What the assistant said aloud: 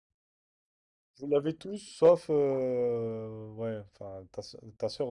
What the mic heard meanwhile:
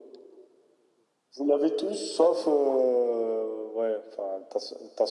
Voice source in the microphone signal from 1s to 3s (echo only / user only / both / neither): echo only